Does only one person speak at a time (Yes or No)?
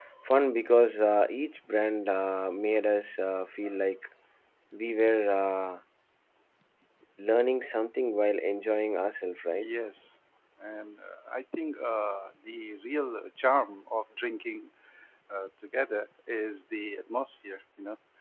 Yes